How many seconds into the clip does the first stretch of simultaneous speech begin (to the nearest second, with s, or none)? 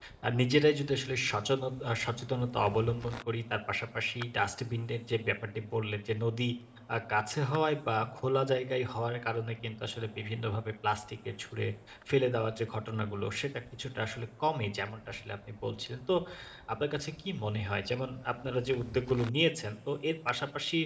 none